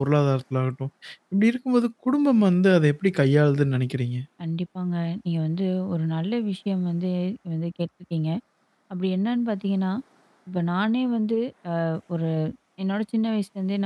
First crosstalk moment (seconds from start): none

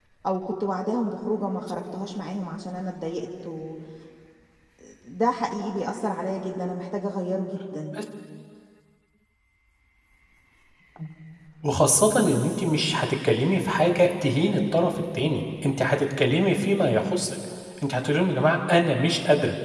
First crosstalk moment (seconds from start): none

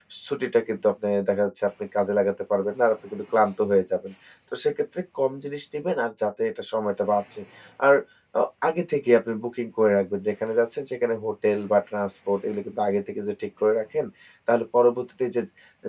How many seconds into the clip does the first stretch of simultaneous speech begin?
none

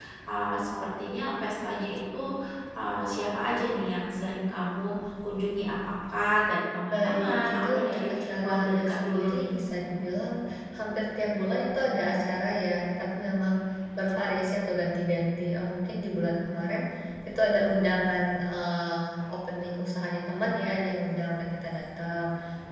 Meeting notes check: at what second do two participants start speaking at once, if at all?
6.9 s

